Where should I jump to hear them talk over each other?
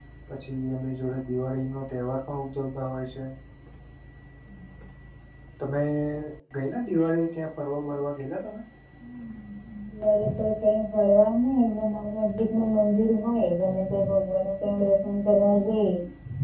none

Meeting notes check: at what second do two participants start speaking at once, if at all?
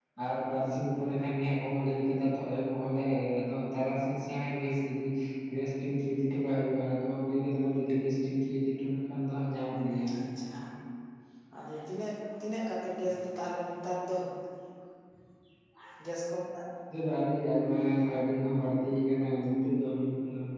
none

